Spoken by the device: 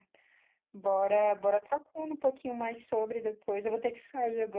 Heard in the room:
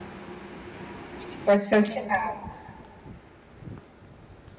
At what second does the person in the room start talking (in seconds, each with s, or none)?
1.3 s